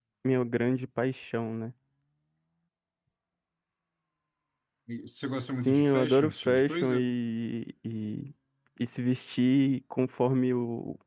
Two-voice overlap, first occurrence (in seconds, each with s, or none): 5.6 s